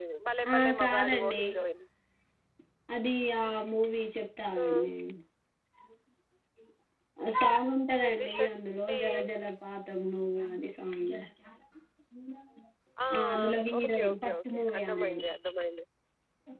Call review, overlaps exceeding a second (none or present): present